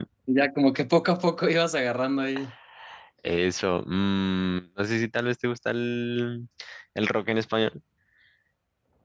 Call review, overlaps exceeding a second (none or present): none